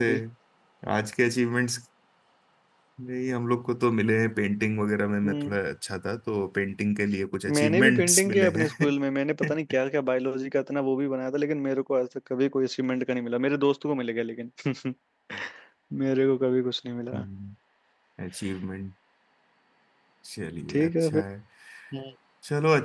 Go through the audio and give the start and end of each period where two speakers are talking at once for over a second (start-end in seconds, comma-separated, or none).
7.5-8.9